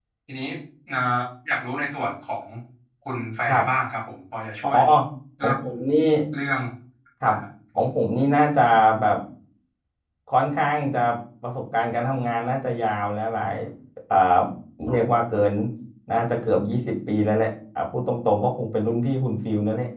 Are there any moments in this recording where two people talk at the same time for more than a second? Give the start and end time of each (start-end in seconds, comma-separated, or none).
none